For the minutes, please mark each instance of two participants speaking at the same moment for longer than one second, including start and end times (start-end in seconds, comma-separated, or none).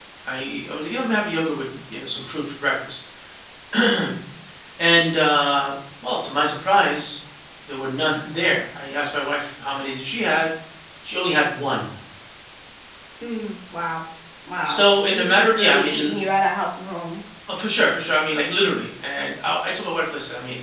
14.7-16.1